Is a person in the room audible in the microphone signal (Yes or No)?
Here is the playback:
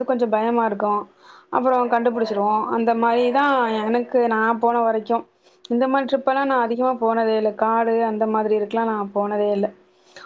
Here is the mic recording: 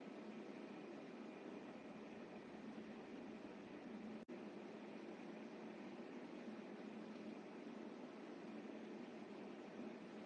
No